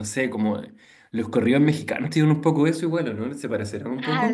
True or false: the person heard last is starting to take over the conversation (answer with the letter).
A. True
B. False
A